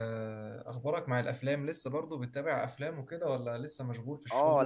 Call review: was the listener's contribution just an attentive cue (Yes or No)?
No